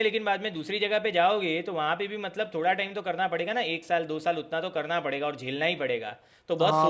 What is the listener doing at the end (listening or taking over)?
taking over